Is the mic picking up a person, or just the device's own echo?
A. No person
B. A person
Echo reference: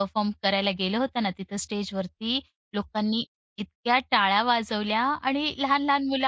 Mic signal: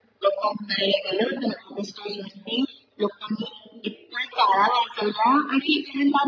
A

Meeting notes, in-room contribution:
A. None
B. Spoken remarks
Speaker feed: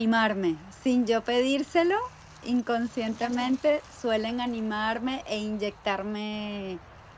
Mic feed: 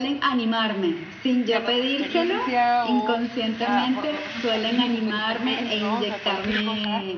B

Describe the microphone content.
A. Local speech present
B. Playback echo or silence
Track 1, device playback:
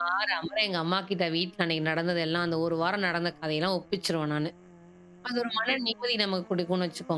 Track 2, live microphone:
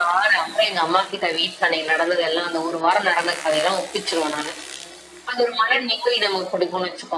B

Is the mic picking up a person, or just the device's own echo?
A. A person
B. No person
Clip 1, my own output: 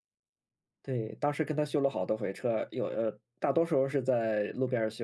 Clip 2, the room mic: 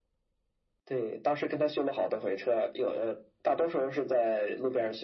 B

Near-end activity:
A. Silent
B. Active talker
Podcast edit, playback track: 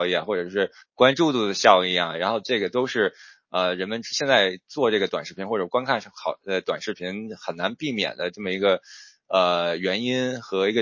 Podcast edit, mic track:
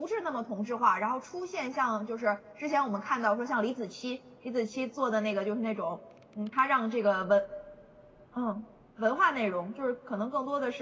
B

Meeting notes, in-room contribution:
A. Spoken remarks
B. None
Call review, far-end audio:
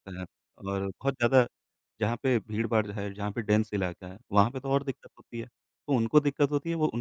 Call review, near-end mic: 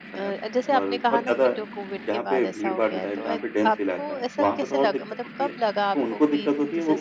A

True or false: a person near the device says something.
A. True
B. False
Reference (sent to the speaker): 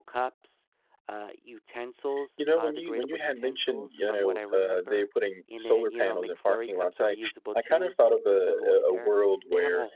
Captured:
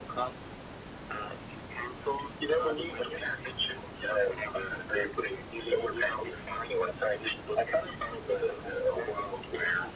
B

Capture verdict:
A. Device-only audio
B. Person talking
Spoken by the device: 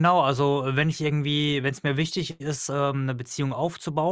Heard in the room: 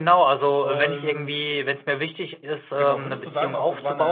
B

